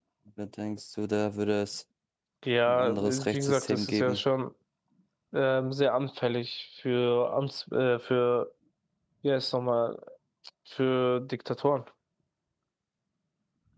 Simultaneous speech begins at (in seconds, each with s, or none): 2.7 s